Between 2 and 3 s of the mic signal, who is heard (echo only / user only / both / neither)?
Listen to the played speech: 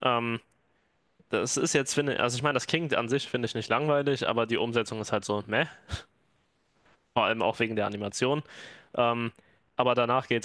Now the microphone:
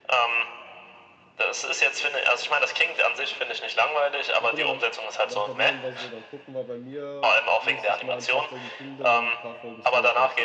echo only